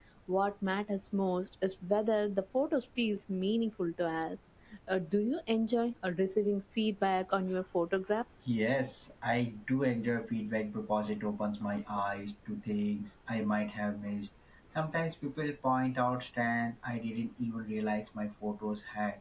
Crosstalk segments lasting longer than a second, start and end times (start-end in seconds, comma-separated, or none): none